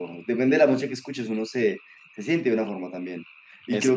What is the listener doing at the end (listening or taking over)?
listening